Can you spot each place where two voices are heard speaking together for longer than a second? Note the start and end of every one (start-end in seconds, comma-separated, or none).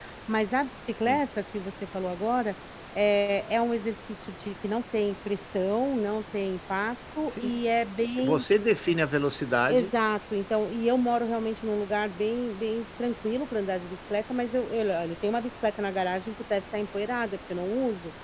none